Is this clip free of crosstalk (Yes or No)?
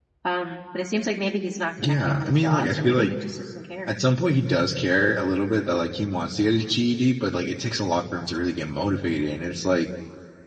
No